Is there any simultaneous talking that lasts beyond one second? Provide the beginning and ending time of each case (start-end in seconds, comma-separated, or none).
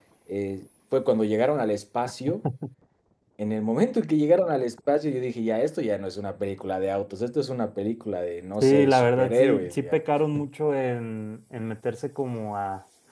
8.6-10.0